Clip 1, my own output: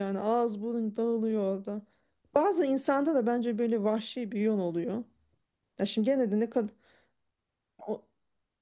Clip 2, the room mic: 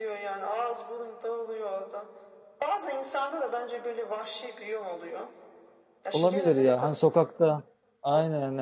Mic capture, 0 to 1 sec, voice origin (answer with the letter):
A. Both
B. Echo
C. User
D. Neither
B